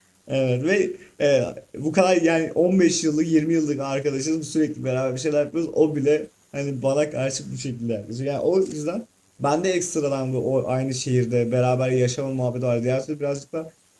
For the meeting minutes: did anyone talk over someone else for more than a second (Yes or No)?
No